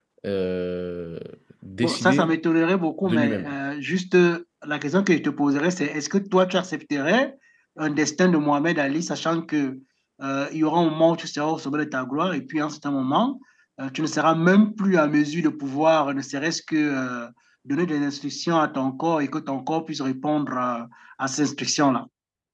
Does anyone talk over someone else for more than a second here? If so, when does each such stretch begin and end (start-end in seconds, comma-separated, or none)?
none